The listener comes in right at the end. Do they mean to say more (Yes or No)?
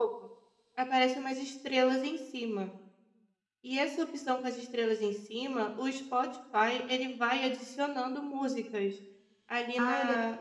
Yes